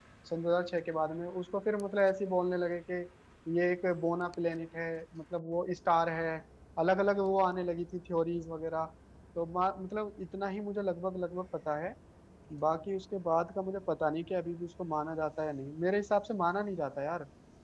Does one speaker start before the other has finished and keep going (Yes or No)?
No